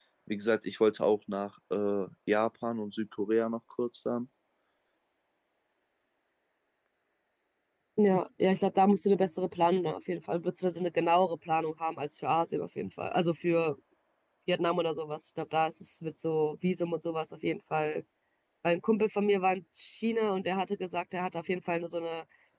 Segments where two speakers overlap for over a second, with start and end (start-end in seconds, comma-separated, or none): none